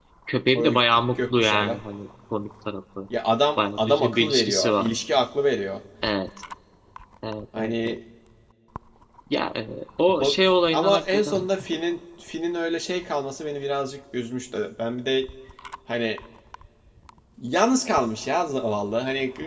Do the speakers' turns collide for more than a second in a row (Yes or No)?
Yes